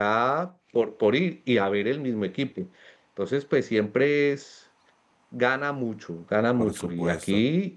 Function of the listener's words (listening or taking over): listening